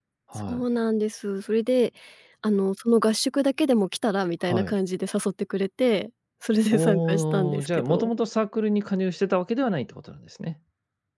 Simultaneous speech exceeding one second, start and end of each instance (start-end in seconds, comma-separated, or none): 6.7-8.1